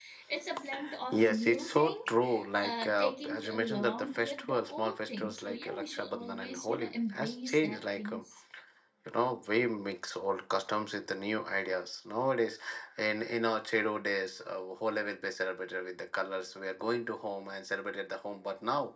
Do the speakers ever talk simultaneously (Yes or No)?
Yes